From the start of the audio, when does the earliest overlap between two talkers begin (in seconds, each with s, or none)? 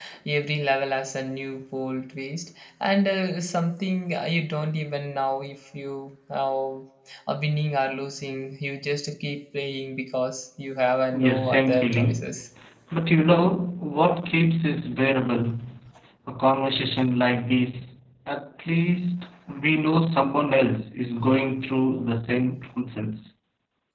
11.1 s